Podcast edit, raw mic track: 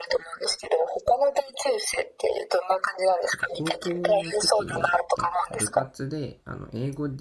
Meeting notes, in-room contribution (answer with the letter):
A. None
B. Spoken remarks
B